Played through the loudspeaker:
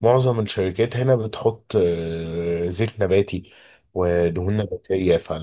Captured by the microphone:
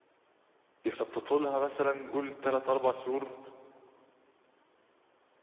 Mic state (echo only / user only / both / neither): user only